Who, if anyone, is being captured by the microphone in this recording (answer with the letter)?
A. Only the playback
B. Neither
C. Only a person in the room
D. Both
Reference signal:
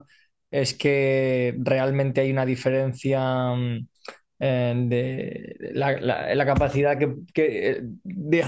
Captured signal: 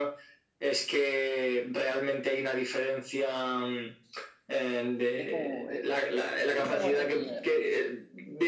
D